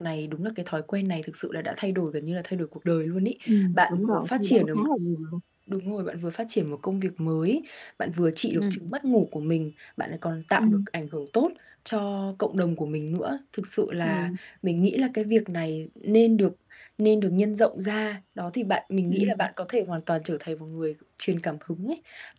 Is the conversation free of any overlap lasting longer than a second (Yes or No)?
No